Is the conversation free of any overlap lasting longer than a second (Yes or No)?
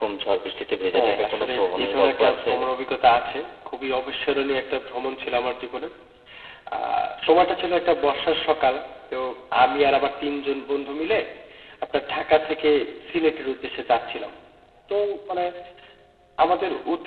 No